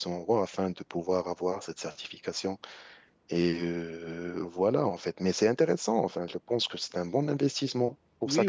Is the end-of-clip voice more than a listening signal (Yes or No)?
Yes